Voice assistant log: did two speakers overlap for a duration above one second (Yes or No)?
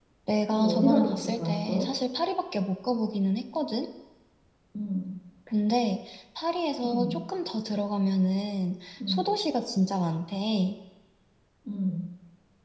Yes